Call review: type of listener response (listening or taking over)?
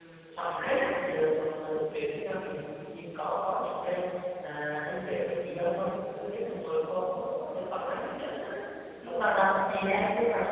listening